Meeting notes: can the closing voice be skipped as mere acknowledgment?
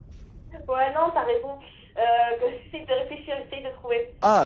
No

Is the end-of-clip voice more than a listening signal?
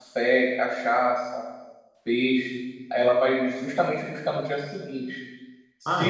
No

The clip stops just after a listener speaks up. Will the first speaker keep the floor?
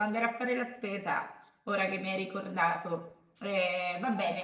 Yes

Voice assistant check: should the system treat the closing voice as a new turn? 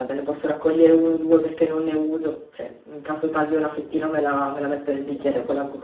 No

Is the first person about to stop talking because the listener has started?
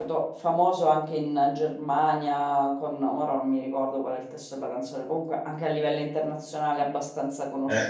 Yes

